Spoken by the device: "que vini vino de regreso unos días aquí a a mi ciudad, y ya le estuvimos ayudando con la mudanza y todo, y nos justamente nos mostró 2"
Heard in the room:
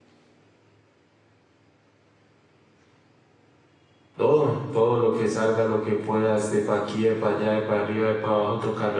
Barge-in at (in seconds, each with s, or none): 4.2 s